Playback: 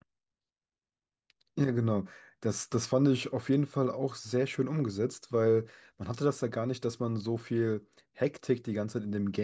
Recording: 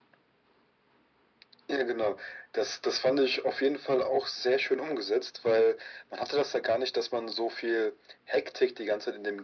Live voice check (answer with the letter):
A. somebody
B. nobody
B